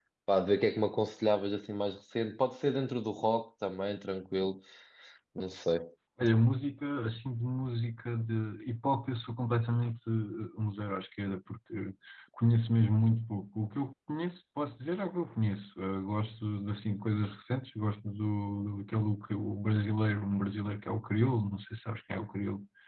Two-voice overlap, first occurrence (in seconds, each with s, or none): none